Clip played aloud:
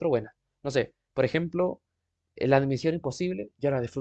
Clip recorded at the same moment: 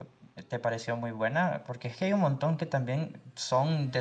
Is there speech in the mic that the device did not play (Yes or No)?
Yes